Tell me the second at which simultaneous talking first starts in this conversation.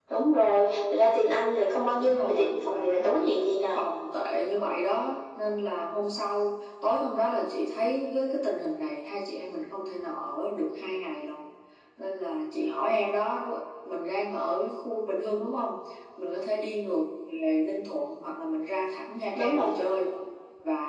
2.0 s

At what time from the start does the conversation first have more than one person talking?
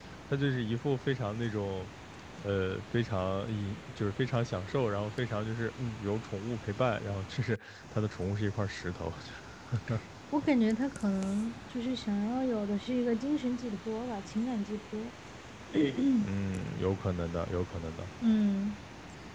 none

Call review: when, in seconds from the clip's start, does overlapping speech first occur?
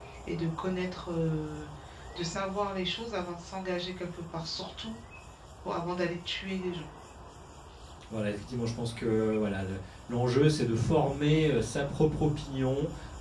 none

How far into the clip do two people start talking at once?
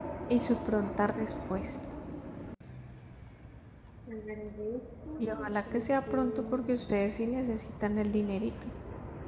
5.2 s

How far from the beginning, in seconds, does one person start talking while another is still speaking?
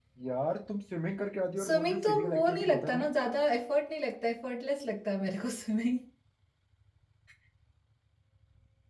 1.6 s

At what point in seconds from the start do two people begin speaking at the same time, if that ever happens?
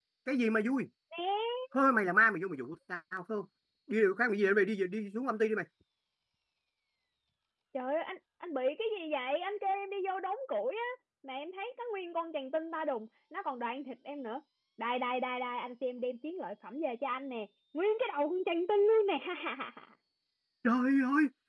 none

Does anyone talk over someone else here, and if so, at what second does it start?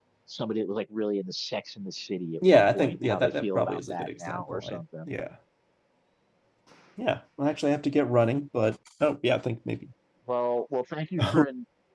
2.5 s

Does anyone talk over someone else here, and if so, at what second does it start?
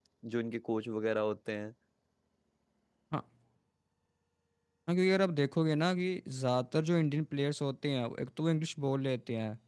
none

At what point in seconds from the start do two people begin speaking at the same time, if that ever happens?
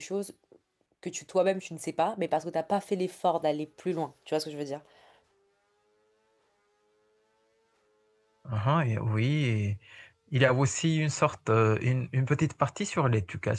none

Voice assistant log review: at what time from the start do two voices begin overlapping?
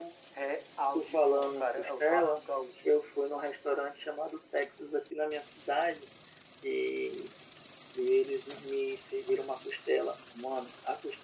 0.9 s

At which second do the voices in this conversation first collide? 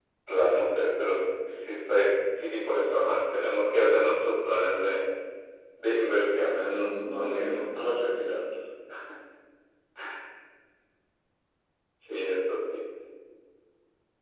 6.6 s

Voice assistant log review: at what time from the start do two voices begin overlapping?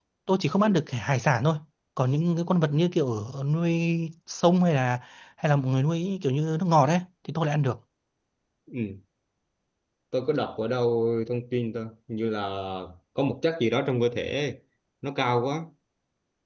none

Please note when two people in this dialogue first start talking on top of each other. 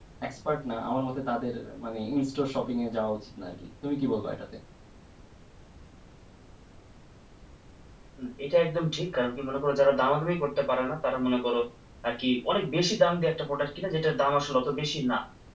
none

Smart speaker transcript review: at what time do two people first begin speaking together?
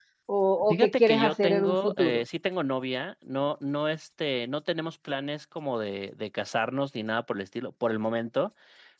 0.7 s

